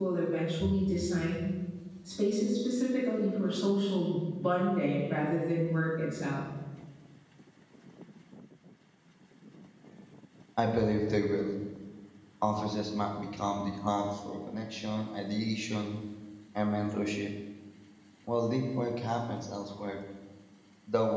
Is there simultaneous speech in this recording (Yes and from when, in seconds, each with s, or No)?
No